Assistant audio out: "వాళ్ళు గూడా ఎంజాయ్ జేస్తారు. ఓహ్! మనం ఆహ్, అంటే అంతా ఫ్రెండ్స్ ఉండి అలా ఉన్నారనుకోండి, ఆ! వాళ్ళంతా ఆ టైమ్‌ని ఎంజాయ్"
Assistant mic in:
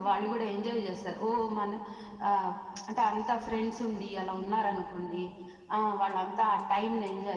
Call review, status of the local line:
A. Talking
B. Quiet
B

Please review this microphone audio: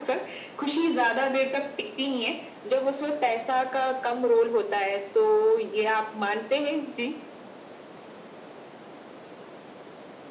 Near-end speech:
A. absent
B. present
A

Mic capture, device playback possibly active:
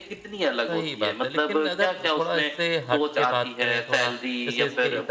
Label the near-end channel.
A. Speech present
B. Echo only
A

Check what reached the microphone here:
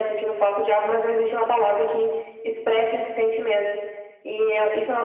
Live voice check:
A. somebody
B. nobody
B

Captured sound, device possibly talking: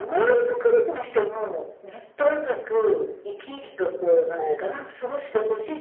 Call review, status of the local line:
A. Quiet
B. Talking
B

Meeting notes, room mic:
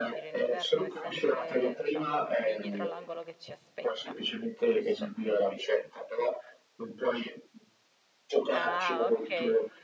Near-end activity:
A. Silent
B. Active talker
B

